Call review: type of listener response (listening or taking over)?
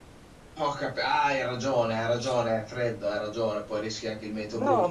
taking over